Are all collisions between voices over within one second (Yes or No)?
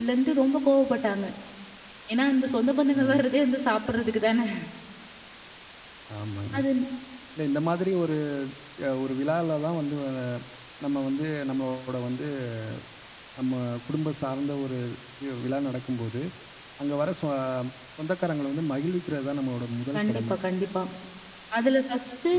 Yes